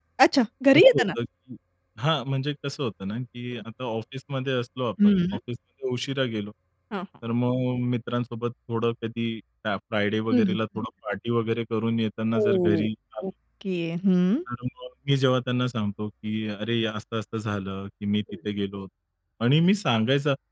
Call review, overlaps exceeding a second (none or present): none